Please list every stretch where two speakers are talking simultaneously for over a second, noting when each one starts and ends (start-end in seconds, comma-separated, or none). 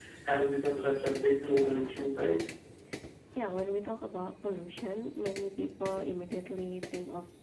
0.6-2.4